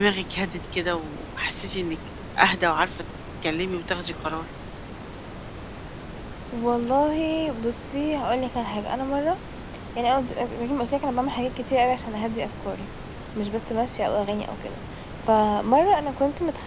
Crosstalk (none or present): none